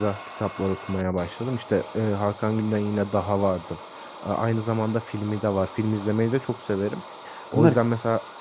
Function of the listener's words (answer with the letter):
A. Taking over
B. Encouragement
B